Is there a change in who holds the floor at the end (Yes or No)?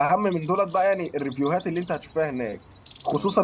No